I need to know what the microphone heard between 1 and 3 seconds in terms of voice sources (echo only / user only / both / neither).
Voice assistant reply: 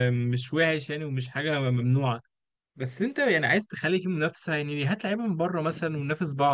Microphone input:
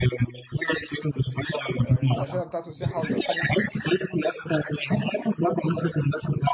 both